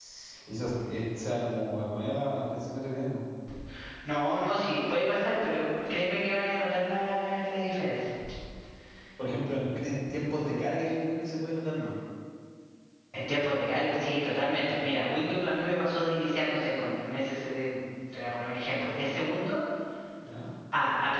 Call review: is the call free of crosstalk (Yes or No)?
Yes